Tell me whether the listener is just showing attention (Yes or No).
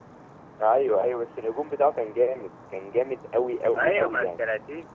No